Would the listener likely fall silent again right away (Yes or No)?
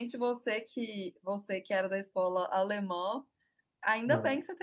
Yes